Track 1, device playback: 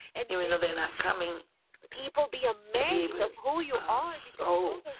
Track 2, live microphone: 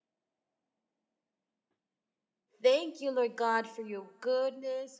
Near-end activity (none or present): present